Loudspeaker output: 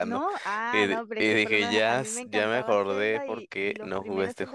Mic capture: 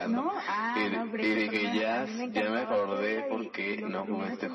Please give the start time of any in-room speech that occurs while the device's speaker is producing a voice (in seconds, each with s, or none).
none